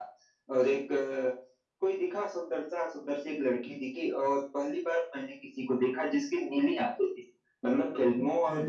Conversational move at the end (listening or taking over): listening